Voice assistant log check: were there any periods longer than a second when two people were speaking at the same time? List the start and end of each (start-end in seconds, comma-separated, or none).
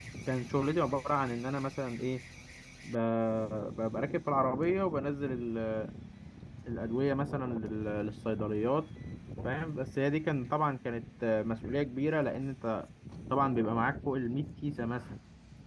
none